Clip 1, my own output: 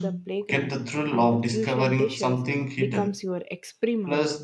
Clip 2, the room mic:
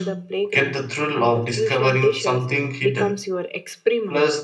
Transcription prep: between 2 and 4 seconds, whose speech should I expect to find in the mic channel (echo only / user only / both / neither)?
echo only